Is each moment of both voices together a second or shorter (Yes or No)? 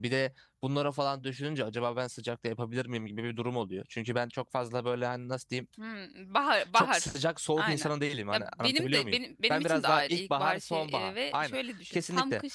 No